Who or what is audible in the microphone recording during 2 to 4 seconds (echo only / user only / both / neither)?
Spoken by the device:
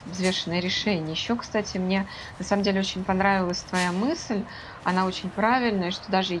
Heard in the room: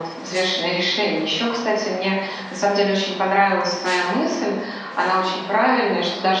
echo only